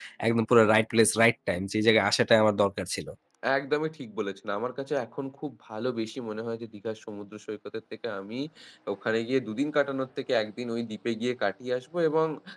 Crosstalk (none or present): none